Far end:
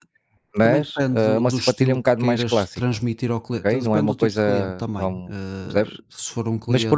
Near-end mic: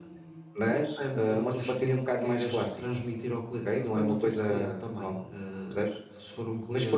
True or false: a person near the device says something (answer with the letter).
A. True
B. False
B